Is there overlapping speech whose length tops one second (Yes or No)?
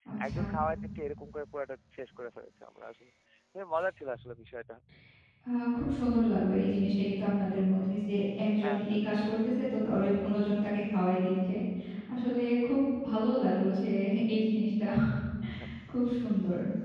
No